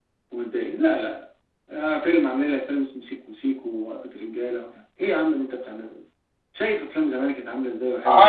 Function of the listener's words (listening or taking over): taking over